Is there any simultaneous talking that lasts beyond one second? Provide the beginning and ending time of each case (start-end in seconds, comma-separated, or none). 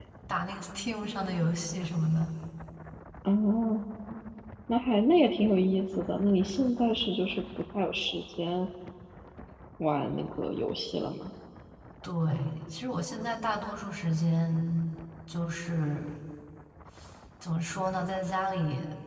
none